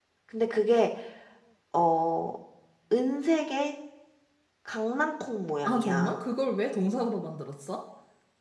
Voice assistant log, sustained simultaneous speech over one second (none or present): none